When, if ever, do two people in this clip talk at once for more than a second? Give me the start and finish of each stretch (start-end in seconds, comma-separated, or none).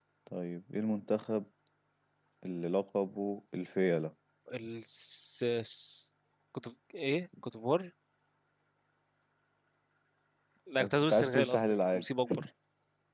10.8-12.0